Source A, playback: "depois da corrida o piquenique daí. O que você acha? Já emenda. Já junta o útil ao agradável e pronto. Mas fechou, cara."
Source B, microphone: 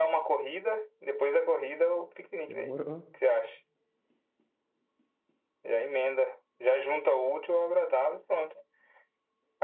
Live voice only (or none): Demorou.